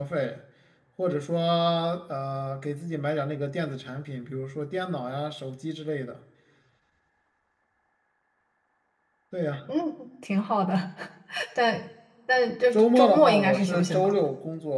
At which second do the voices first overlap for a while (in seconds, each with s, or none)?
12.7 s